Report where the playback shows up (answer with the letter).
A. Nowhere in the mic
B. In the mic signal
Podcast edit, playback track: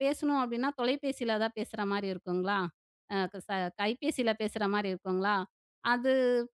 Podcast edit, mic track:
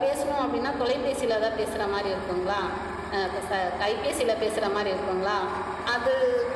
B